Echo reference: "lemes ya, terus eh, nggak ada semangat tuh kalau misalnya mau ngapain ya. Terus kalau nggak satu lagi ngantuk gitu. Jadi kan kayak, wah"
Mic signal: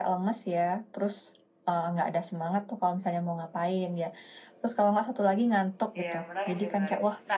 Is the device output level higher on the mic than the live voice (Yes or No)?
Yes